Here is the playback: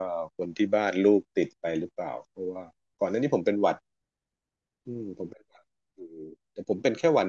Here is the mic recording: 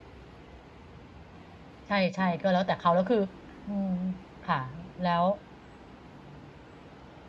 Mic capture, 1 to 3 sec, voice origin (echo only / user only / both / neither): user only